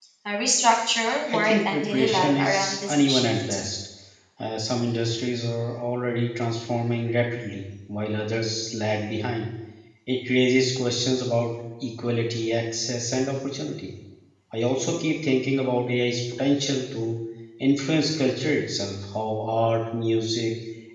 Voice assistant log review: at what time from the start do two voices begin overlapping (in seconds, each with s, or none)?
1.3 s